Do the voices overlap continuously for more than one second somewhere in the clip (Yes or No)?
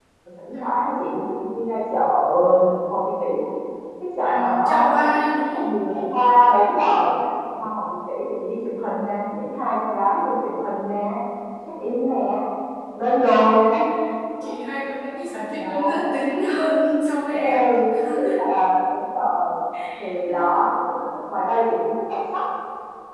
Yes